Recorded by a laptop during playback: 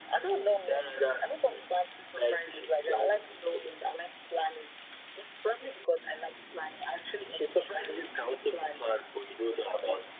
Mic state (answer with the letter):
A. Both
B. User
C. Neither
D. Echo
D